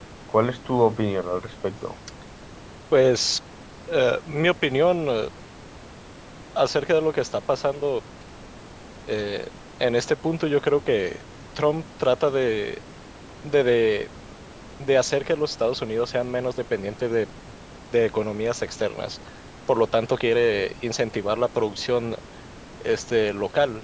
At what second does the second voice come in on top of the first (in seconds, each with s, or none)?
none